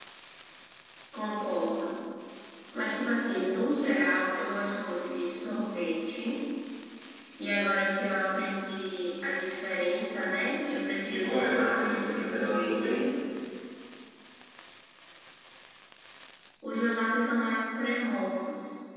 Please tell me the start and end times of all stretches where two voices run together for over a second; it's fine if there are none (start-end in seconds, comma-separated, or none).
11.1-13.1